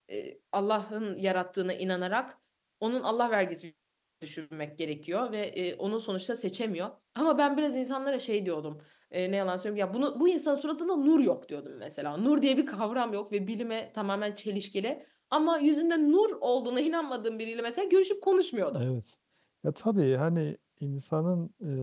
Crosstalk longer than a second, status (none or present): none